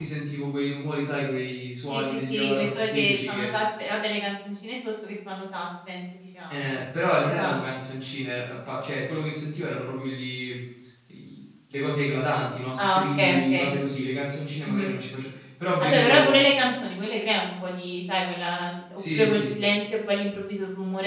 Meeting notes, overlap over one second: present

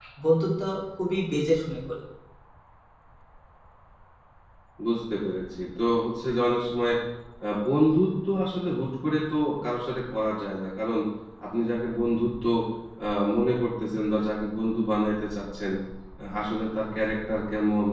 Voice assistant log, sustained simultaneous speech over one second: none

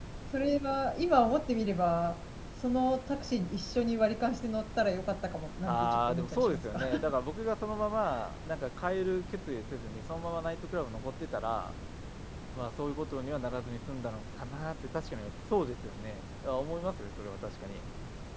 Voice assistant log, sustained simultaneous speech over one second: present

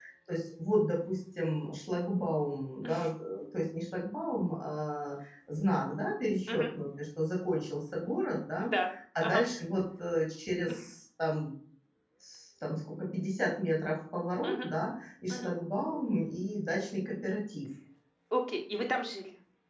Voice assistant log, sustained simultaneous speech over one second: none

